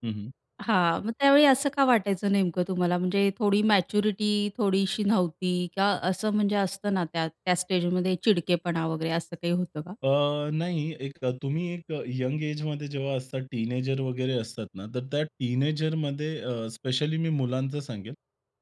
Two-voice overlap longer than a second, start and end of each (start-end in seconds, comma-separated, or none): none